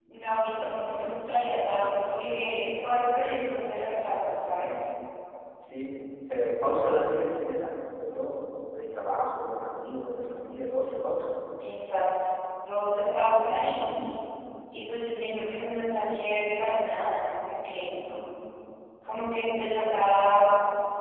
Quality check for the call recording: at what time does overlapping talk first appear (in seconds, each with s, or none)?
0.6 s